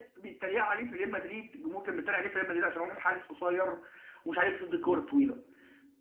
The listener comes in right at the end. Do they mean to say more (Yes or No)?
No